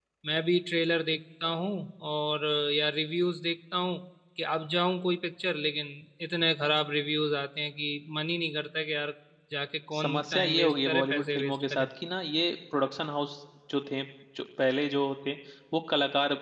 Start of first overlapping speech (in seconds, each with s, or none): 10.0 s